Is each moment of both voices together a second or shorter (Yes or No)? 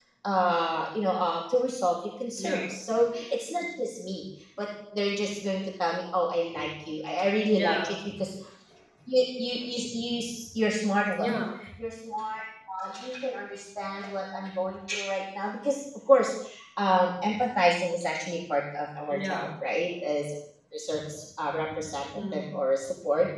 Yes